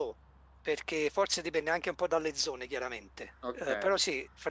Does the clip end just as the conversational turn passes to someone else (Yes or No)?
No